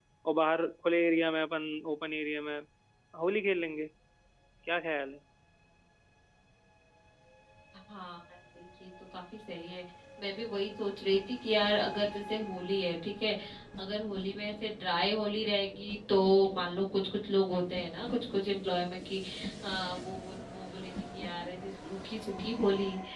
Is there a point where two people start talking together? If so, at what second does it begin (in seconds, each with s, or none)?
none